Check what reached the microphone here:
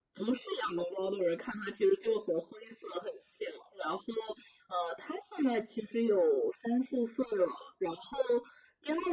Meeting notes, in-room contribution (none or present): none